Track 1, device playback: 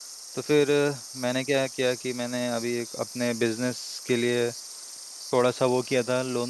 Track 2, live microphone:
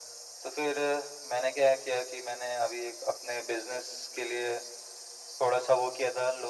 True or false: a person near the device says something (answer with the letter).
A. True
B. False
B